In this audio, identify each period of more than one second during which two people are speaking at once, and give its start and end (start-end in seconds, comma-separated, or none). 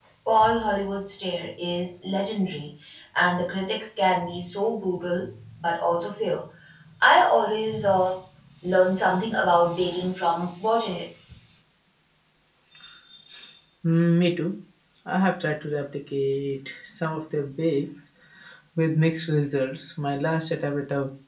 none